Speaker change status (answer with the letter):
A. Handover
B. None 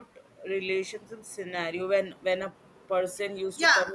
A